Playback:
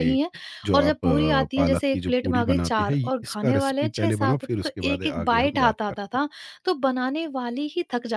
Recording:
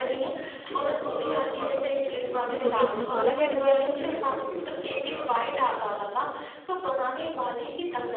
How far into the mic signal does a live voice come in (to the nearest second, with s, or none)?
3 s